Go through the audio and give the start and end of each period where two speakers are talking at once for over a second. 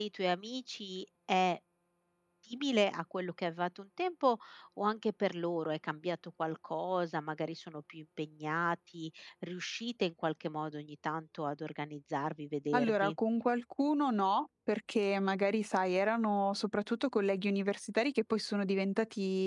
none

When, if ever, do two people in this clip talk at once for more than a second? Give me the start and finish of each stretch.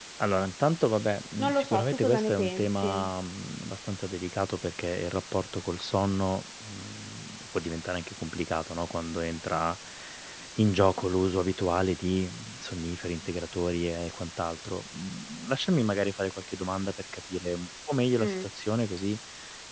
1.4-2.9

